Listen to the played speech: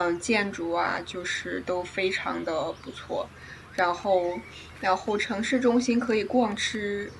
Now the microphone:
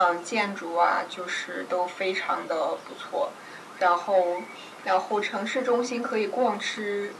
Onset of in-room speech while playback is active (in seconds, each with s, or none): none